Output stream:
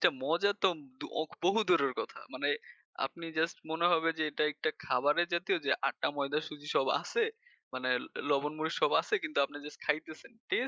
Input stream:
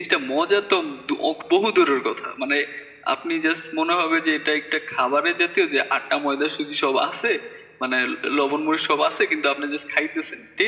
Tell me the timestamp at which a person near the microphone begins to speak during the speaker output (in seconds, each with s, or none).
none